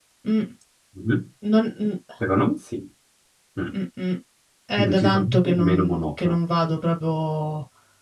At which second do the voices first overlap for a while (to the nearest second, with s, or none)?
5 s